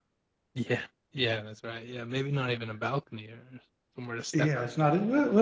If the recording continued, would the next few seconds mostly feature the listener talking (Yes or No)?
Yes